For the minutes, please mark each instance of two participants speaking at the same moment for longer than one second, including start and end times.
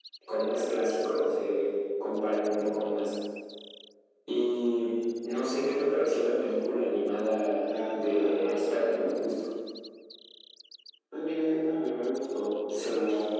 7.6-9.1

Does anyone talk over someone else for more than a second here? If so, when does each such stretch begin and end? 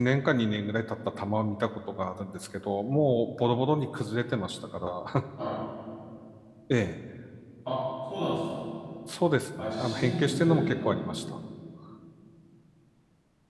9.6-10.9

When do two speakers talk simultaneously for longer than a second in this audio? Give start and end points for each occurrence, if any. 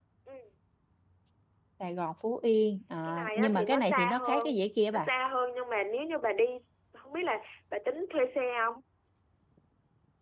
3.1-4.5

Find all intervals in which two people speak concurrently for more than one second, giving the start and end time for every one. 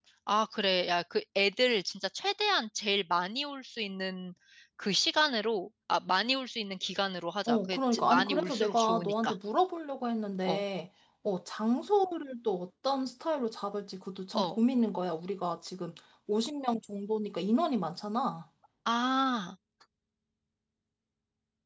7.5-9.3

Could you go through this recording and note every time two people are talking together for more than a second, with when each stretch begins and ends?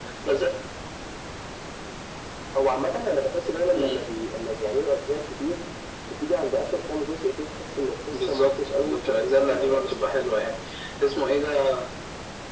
8.1-10.1

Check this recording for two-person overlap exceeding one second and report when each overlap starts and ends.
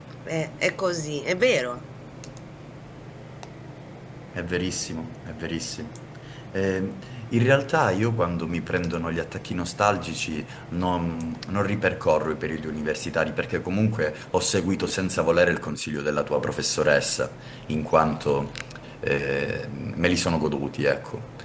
none

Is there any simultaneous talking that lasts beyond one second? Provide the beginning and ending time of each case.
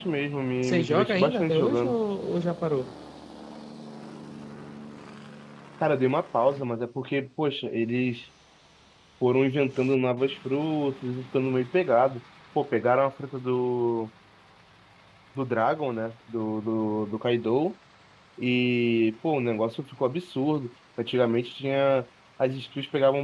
0.6-2.0

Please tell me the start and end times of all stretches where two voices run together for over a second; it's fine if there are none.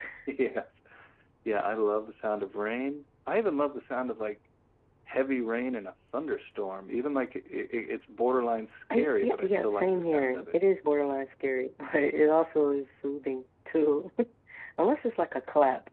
8.9-10.6

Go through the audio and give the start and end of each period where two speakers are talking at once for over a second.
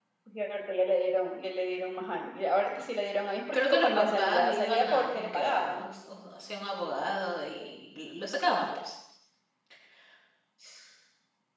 3.5-5.8

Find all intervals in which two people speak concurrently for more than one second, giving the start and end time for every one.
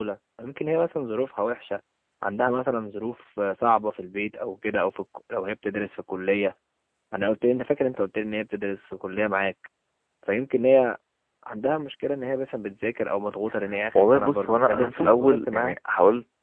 13.9-15.8

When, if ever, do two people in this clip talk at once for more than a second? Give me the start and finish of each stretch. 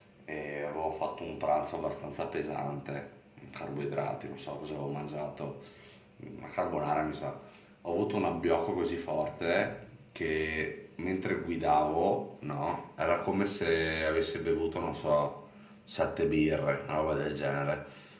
none

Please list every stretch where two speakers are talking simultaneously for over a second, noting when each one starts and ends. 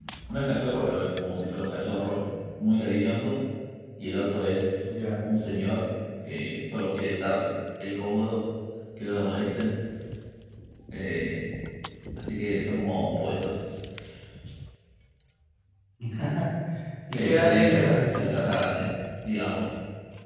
17.1-18.5

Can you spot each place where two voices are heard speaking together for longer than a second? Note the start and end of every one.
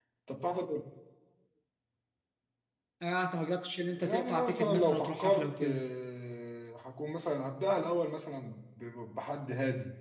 4.0-5.8

